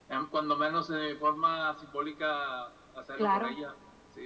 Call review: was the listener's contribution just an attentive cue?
Yes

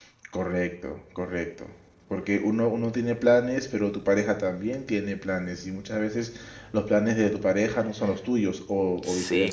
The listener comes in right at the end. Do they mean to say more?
Yes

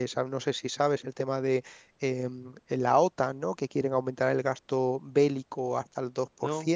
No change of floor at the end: Yes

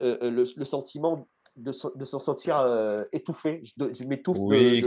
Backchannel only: No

